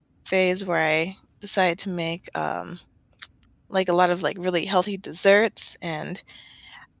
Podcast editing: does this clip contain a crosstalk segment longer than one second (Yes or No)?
No